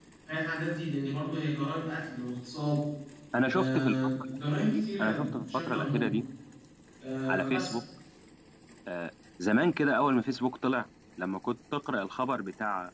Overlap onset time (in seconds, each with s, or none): 3.4 s